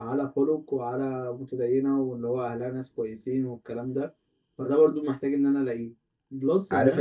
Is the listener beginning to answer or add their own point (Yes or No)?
Yes